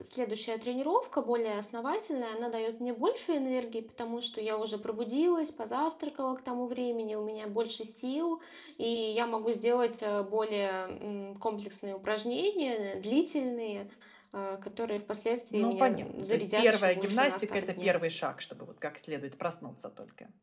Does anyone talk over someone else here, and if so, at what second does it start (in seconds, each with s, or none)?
15.5 s